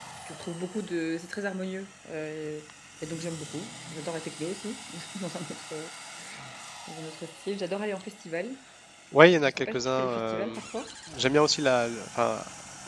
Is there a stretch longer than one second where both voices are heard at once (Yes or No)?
Yes